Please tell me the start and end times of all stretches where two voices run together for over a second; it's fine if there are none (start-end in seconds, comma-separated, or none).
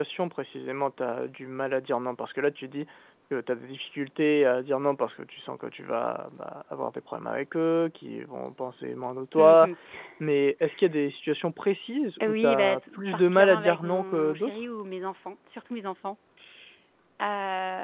12.3-14.6